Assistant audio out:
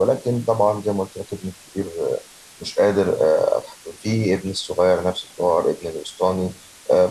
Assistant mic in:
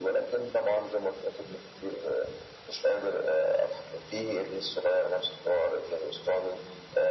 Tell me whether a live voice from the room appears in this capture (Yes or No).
No